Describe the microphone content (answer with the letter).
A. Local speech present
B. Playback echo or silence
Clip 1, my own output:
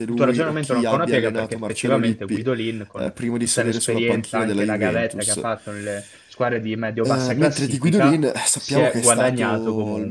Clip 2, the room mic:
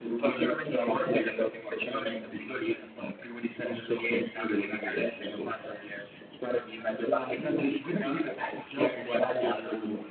B